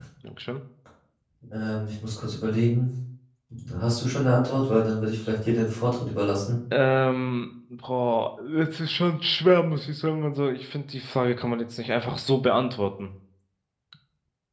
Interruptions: none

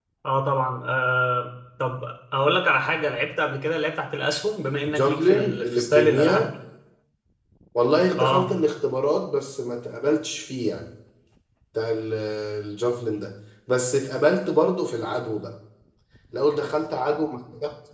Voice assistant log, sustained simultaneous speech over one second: present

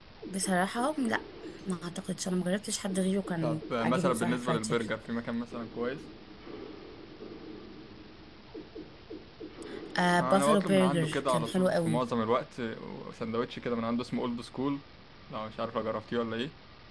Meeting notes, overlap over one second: present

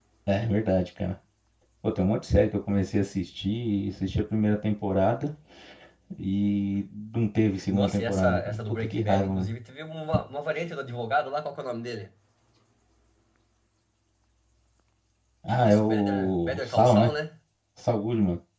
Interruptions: present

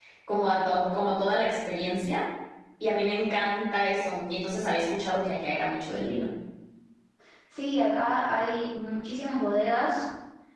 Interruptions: none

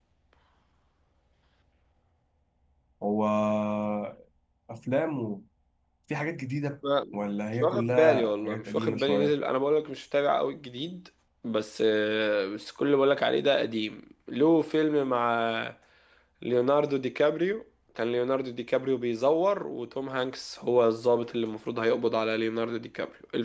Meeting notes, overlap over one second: present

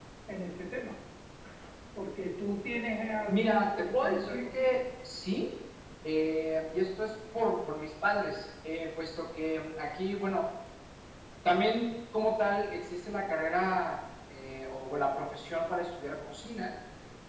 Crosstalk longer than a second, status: present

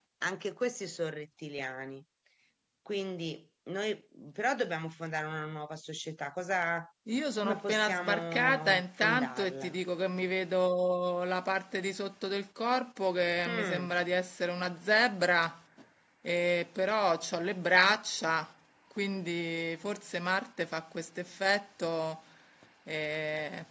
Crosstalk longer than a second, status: present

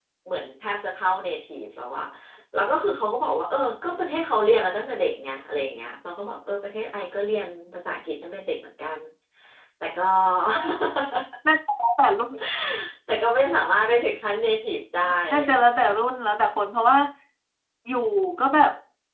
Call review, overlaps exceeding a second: none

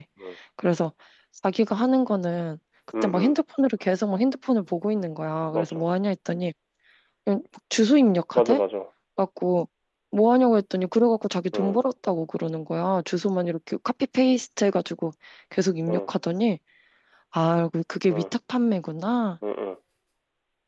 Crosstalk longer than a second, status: none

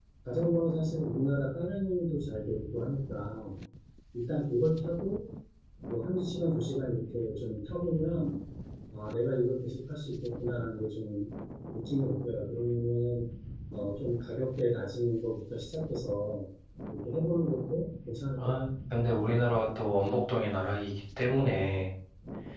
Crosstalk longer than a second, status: none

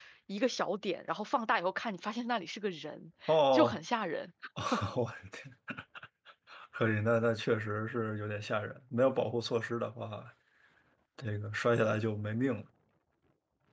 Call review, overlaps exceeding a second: none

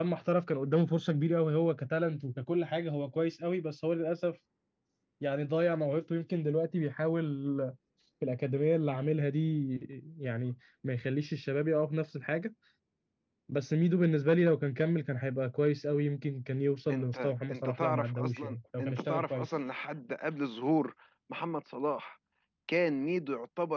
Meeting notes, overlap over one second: present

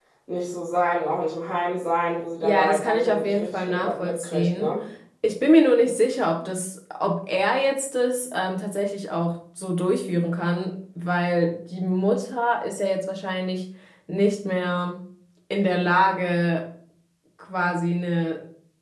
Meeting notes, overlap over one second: present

